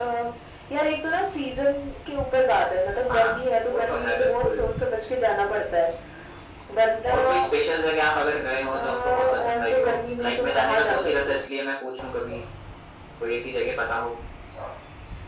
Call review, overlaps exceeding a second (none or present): present